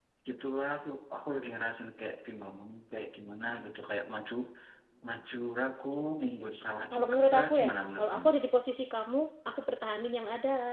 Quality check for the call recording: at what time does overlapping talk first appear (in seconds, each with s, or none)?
6.9 s